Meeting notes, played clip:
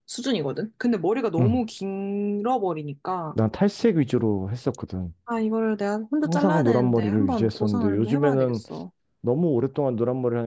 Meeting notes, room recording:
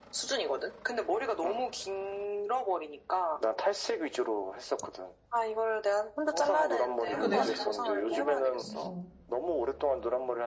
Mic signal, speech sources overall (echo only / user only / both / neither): both